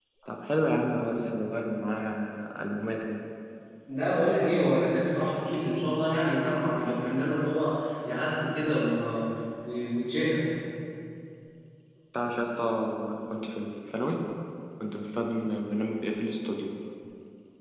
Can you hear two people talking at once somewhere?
No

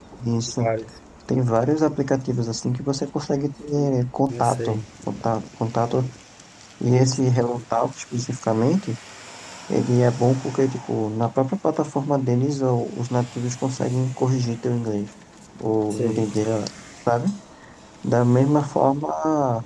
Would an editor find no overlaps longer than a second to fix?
Yes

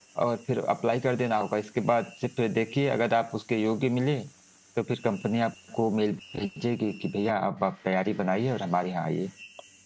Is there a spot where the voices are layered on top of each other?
No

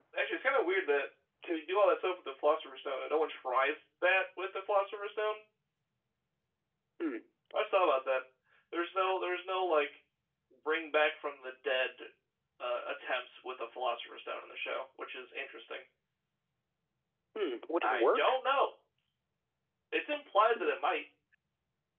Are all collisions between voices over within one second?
Yes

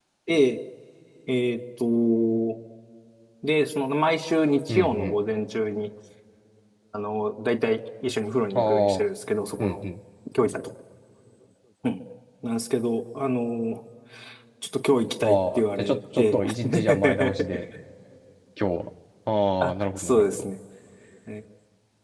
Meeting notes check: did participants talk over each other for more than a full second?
Yes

